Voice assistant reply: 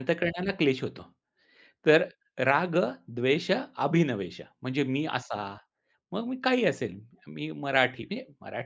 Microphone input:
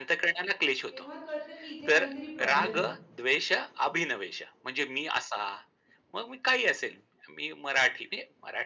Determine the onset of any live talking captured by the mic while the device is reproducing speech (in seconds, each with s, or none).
0.9 s